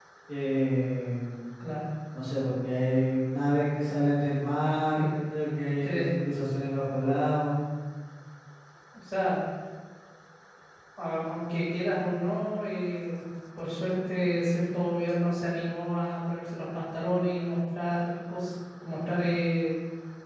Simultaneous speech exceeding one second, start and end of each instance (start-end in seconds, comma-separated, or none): none